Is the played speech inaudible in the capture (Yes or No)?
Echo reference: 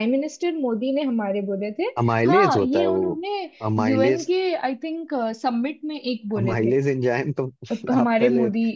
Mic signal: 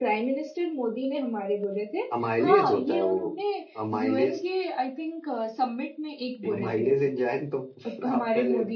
No